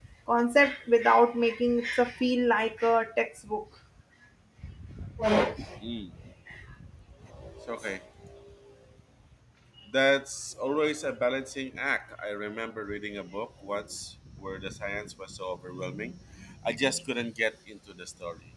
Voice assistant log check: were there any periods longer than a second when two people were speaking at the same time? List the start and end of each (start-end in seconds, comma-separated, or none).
none